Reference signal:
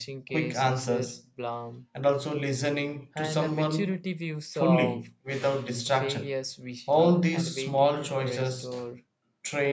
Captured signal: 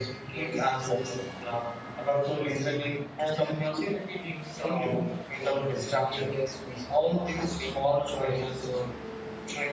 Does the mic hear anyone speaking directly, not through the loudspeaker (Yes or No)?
No